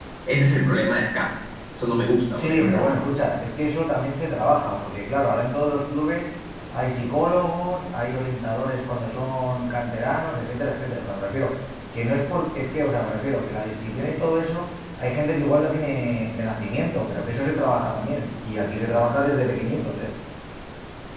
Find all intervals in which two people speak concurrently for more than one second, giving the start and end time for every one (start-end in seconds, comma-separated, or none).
none